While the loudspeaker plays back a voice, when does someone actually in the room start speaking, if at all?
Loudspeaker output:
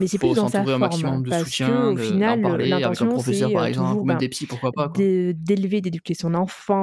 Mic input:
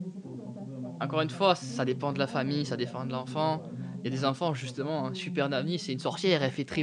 1 s

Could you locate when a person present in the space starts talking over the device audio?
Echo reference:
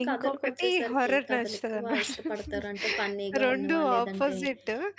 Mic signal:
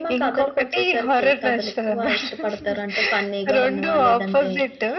none

